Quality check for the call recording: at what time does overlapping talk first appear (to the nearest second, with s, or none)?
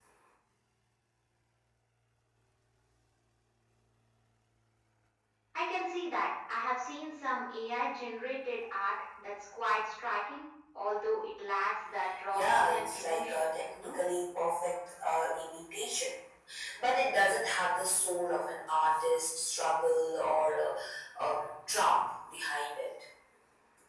12 s